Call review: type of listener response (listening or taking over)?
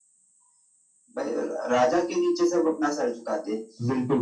taking over